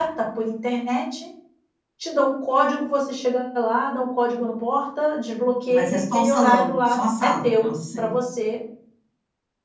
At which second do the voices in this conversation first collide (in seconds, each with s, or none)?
5.7 s